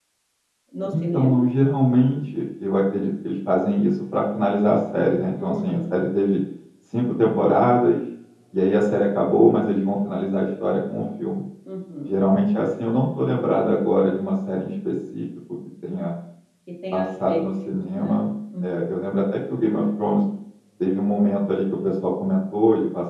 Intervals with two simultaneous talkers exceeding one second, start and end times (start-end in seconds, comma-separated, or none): 16.9-18.1